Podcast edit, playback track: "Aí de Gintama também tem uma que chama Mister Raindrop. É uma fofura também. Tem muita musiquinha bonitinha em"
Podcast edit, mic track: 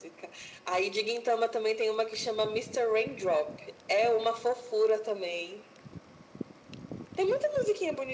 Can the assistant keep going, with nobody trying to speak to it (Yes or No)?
Yes